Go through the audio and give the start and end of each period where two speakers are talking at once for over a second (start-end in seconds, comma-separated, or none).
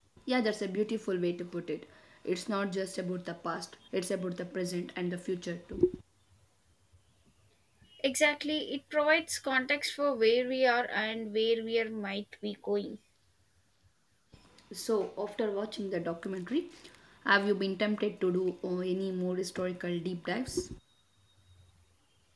none